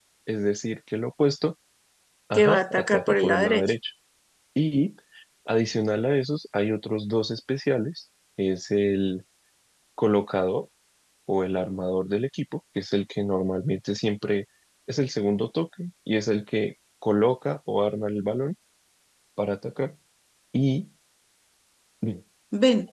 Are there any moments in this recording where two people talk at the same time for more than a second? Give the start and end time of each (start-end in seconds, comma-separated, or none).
2.4-3.6